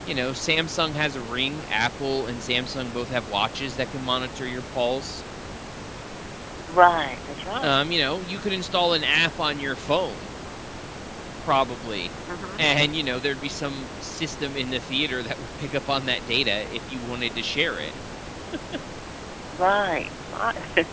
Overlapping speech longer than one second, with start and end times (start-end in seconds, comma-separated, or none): none